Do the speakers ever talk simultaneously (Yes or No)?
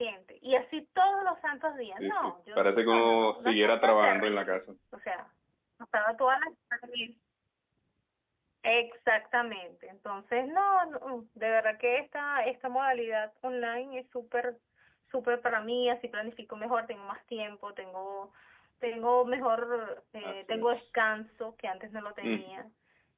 Yes